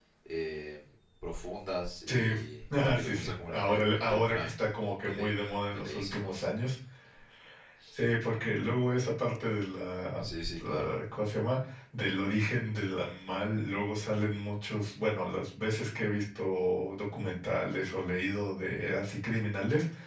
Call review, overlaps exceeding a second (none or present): present